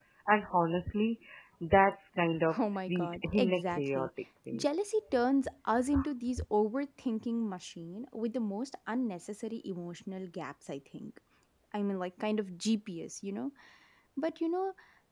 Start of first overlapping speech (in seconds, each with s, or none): 2.5 s